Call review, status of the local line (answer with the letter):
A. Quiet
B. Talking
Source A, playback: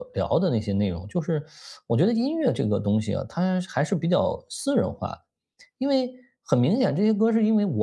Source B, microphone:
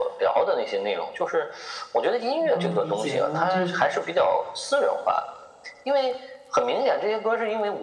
B